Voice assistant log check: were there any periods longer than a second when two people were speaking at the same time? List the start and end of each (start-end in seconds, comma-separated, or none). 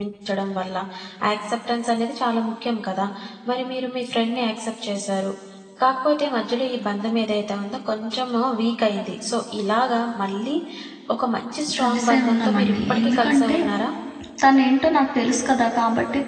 11.8-13.5